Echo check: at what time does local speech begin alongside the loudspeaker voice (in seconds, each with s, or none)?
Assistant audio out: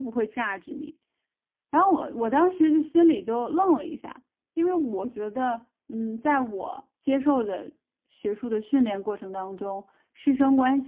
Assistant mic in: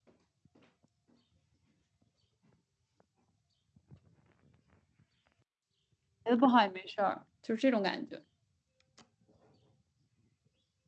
6.2 s